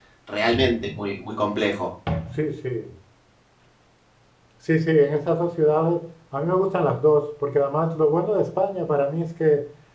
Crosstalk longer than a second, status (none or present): none